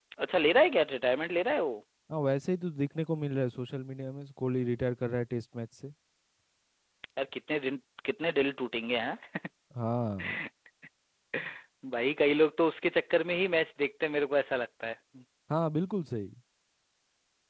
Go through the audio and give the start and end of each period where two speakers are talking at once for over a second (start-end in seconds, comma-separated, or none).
none